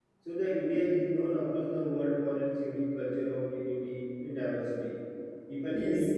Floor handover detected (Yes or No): No